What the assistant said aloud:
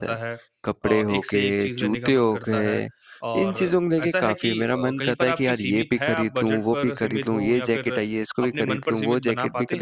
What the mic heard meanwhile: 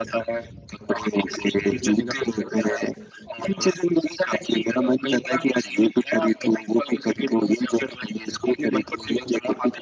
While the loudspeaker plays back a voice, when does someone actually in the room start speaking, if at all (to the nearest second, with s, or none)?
none